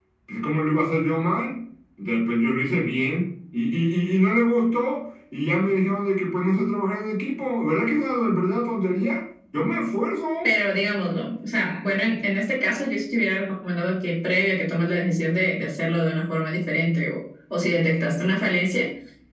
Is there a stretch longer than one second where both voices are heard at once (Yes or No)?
No